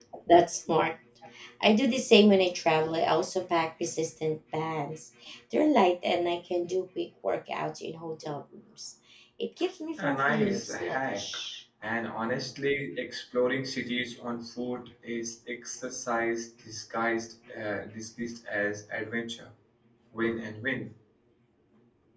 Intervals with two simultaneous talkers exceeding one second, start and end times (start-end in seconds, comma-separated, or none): 10.0-11.2